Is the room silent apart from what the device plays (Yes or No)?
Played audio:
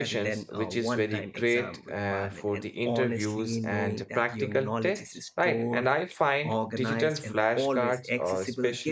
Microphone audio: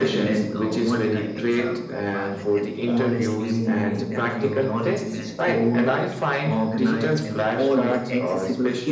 No